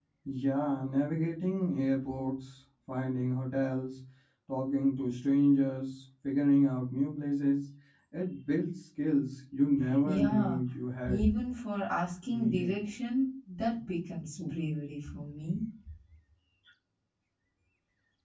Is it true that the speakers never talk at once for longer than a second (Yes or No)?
Yes